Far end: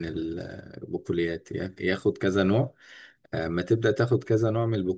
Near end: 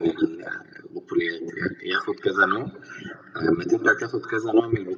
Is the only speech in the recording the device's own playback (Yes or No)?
Yes